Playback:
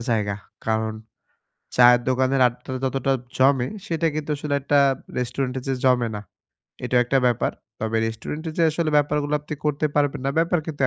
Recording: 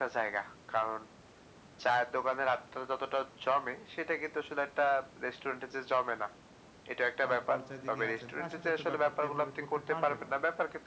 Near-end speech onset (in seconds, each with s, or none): 7.3 s